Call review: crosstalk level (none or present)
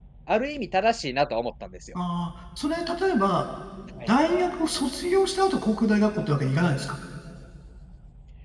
none